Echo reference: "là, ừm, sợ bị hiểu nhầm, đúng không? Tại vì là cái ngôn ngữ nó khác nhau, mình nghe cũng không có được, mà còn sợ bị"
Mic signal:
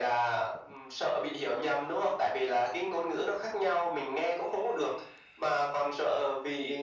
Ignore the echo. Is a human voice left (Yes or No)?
No